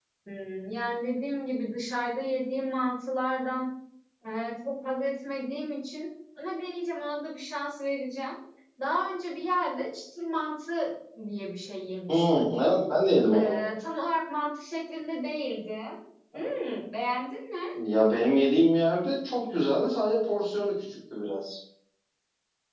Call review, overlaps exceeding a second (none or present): none